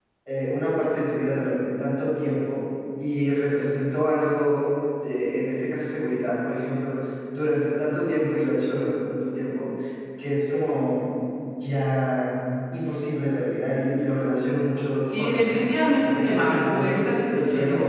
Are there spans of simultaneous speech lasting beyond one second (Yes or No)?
Yes